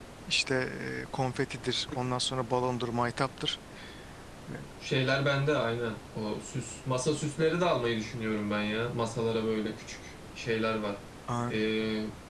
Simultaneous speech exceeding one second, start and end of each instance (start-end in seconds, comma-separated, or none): none